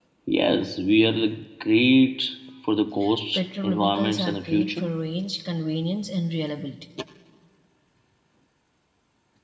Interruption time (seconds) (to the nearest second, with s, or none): 3 s